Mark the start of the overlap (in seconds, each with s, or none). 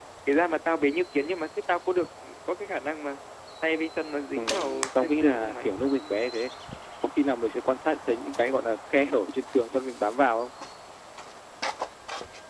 4.4 s